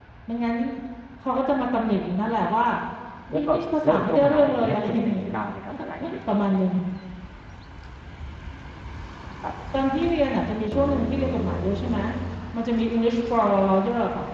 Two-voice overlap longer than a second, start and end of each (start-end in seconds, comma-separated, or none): 3.3-5.3